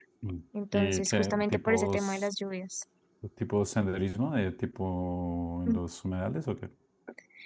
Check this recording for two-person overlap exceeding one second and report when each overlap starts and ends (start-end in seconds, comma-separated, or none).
0.7-2.3